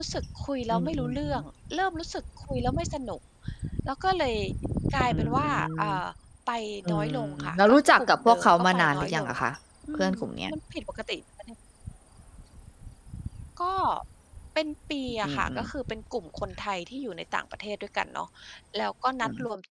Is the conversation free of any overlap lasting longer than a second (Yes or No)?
No